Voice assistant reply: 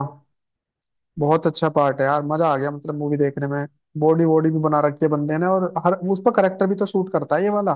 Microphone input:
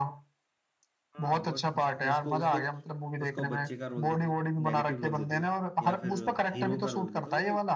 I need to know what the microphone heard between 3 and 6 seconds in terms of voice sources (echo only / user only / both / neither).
both